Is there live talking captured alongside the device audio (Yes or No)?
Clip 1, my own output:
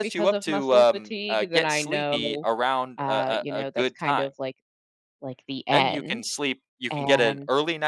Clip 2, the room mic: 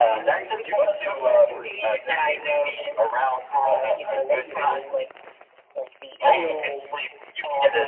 Yes